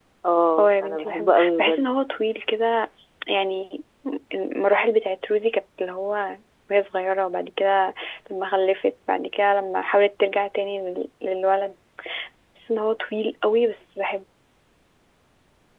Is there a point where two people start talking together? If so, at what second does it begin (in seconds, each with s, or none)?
0.6 s